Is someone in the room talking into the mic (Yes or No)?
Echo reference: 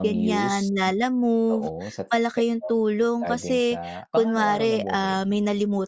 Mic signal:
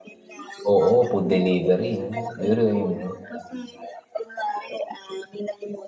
Yes